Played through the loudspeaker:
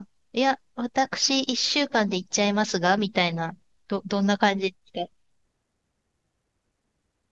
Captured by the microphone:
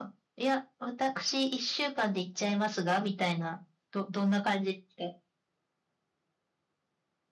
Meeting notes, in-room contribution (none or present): none